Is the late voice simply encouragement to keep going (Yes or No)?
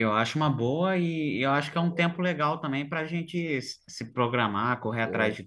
Yes